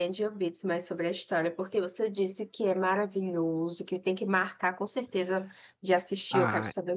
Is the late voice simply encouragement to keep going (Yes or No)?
No